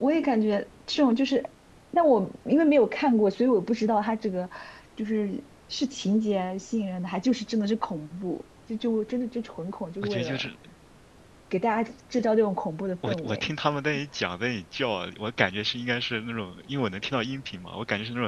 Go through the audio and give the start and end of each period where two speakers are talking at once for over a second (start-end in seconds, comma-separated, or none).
none